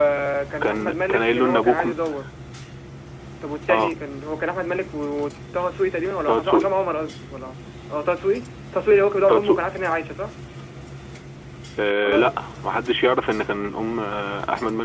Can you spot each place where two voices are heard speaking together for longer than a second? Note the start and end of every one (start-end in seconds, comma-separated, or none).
0.6-2.0